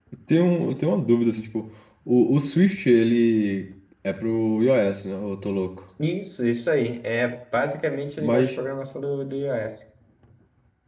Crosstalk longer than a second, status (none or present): none